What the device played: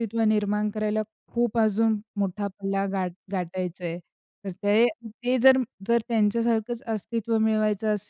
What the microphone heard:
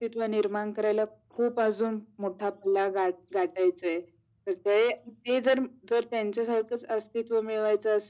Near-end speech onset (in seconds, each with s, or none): none